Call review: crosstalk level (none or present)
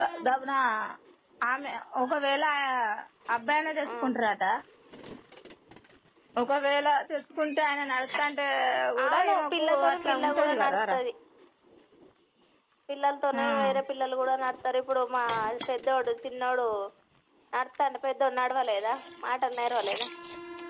present